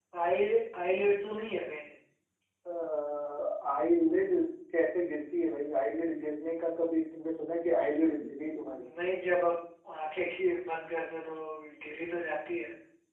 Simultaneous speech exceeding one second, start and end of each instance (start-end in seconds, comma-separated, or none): none